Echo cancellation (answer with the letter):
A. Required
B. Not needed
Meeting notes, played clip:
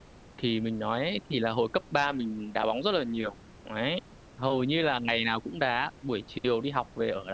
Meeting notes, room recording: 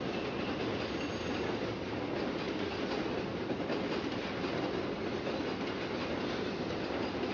B